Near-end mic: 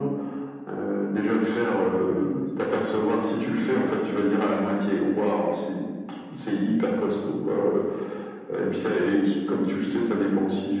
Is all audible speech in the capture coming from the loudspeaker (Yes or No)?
No